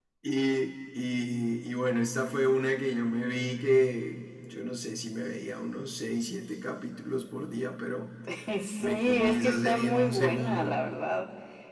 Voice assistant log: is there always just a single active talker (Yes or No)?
No